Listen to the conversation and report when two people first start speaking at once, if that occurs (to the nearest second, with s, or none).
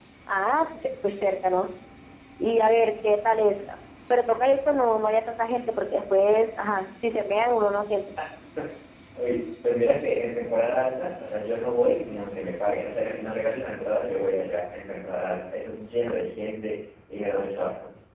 none